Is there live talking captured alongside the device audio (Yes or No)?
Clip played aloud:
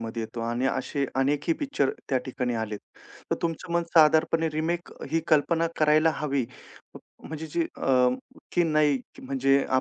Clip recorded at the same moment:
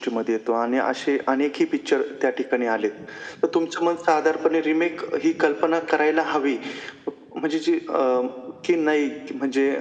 No